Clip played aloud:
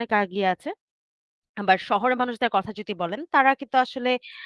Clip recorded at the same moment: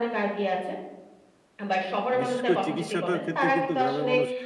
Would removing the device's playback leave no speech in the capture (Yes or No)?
No